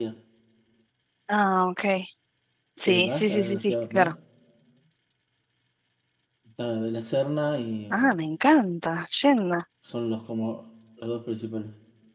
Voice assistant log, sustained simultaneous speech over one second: present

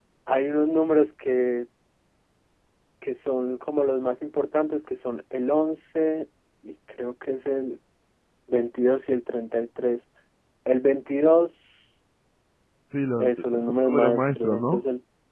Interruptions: present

